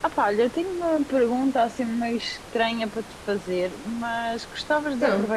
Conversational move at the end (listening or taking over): listening